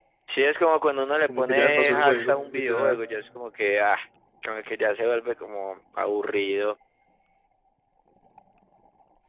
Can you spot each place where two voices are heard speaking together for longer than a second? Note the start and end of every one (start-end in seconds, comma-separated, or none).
1.3-3.0